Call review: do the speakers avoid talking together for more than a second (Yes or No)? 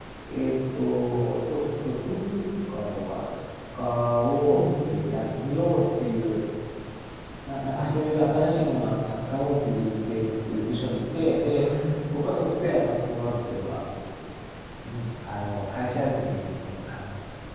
Yes